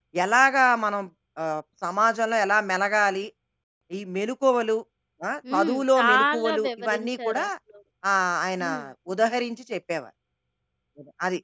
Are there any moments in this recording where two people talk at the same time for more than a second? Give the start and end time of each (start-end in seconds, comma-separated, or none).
5.5-7.4